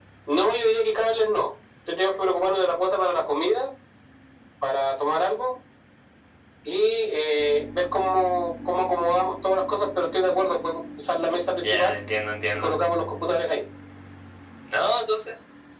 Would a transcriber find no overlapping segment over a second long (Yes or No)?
Yes